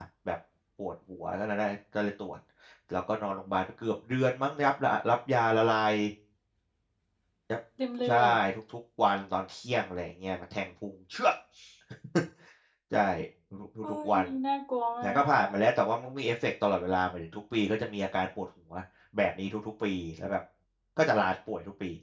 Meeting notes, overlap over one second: none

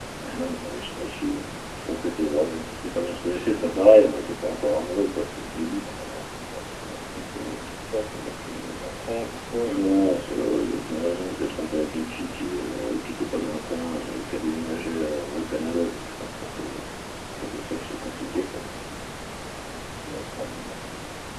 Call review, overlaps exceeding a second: none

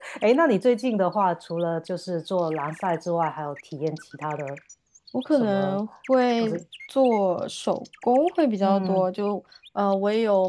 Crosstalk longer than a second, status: none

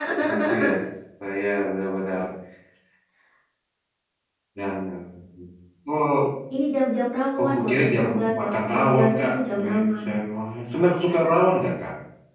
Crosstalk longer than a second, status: present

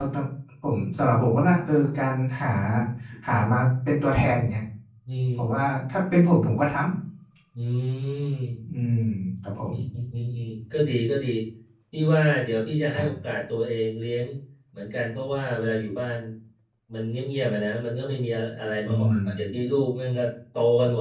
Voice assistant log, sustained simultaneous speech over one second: none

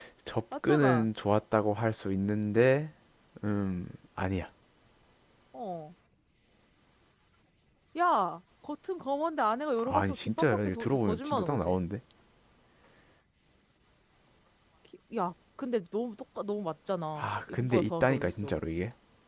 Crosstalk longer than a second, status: present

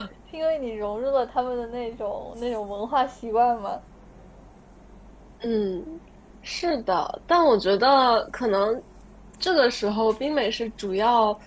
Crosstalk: none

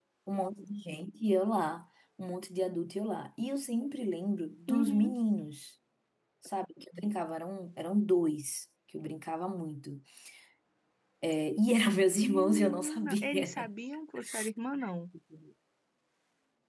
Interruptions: present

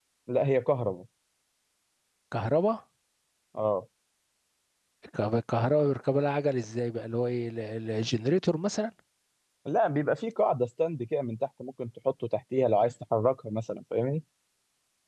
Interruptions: none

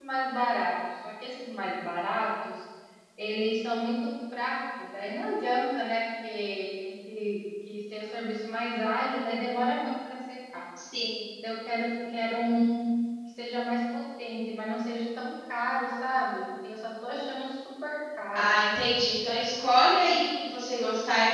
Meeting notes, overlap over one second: none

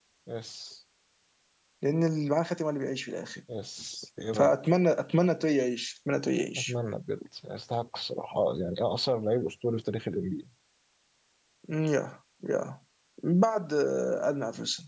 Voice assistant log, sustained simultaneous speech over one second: none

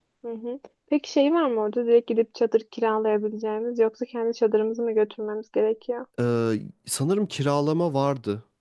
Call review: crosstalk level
none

